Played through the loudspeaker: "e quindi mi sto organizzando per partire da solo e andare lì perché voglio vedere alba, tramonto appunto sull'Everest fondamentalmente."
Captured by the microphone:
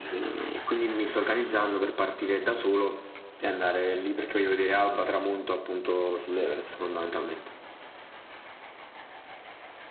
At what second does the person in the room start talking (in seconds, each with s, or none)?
none